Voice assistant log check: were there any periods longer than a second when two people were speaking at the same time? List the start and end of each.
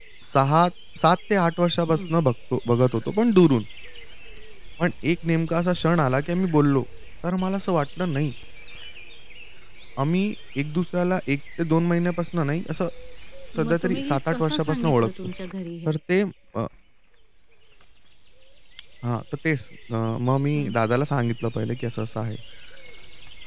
13.6-15.1

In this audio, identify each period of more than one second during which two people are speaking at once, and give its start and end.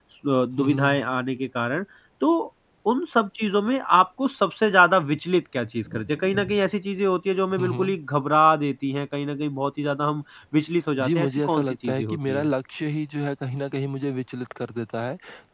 11.0-12.5

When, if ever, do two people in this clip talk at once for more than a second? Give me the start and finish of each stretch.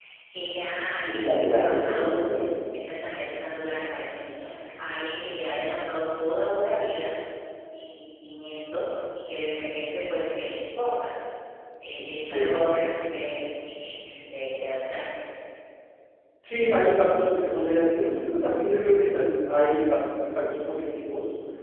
1.0-2.5

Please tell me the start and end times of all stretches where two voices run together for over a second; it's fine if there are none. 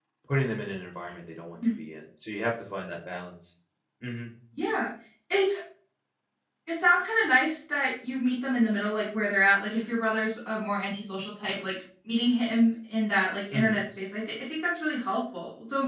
none

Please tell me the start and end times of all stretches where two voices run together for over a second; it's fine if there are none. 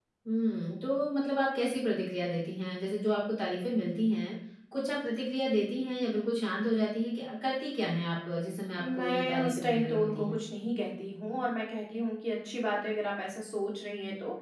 9.0-10.4

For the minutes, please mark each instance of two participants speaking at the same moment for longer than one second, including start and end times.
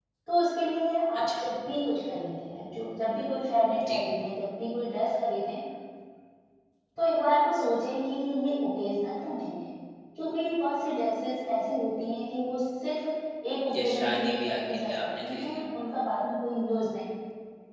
13.8-15.6

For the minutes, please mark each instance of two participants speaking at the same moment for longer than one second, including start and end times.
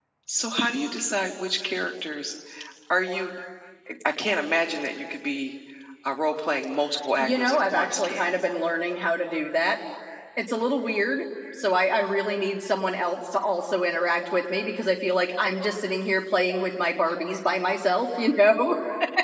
7.2-8.4

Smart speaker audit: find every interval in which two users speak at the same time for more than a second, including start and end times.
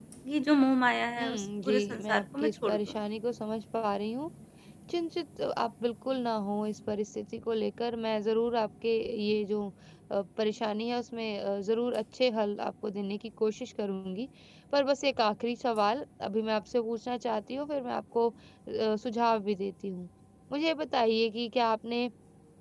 1.2-3.0

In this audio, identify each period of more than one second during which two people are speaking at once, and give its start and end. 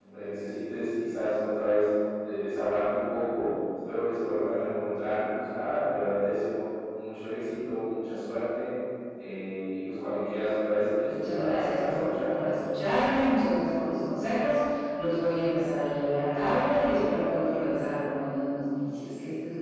11.0-12.6

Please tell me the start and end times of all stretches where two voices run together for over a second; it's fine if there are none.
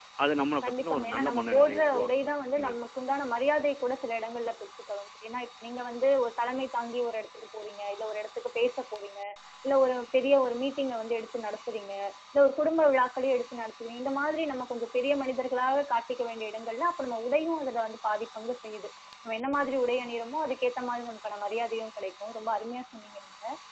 0.6-2.7

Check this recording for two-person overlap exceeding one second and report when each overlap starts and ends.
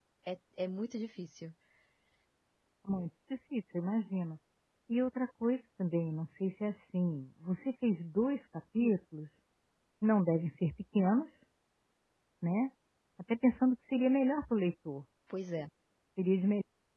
none

